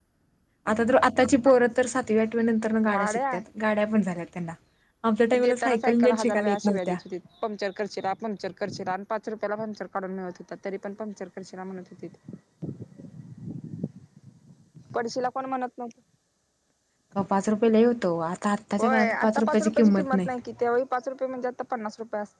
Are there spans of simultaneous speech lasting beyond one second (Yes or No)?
Yes